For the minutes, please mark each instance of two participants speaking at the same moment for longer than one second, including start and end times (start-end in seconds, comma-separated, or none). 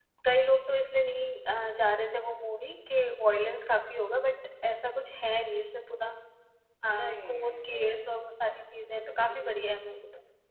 6.9-9.6